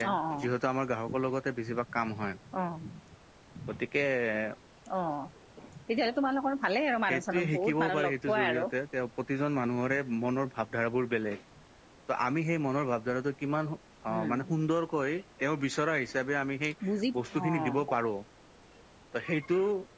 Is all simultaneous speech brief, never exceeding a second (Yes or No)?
No